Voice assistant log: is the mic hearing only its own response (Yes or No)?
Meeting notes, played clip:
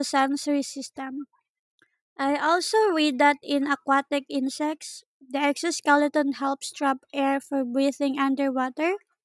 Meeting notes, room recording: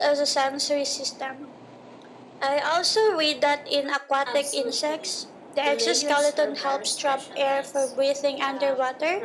No